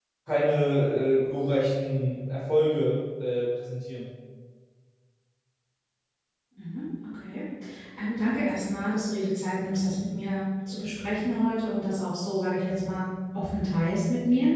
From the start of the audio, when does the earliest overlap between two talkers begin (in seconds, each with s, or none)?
none